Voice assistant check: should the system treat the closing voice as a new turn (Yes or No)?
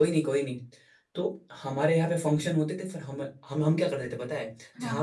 No